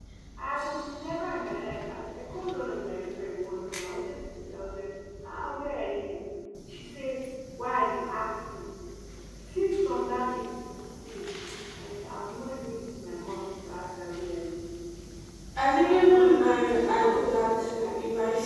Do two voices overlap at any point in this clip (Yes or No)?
Yes